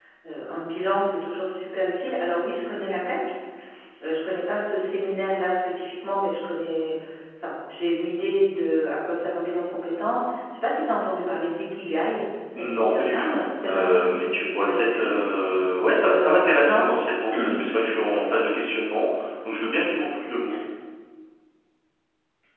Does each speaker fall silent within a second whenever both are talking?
No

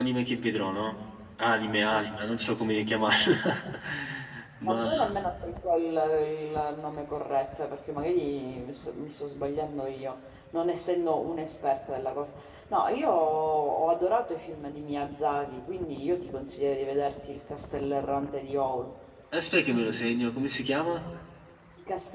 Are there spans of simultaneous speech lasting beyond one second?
No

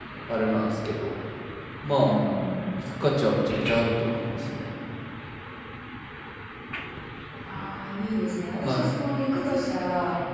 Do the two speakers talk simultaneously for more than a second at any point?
No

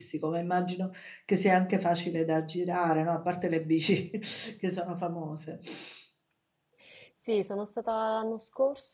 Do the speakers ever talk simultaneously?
No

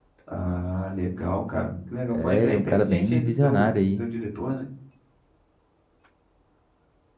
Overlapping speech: Yes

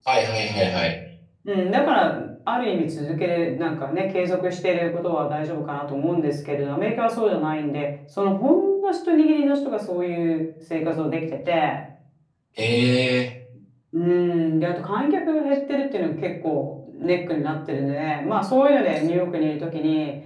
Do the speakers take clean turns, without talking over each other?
Yes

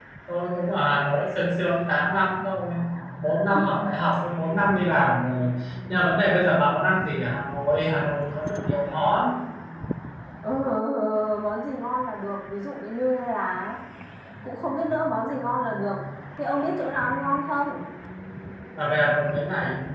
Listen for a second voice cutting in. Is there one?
No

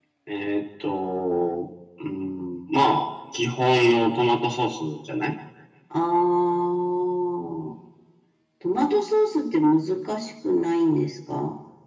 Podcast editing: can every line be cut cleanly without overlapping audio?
Yes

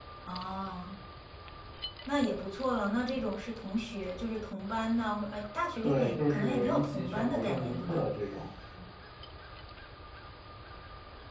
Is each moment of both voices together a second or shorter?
No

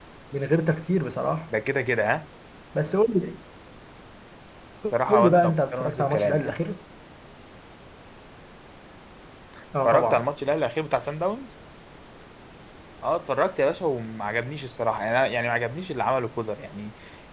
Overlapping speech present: Yes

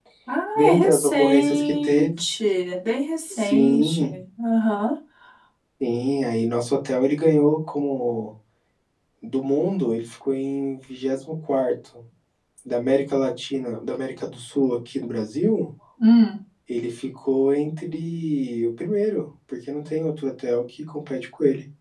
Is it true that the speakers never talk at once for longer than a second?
No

